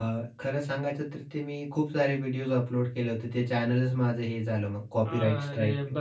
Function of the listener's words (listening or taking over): taking over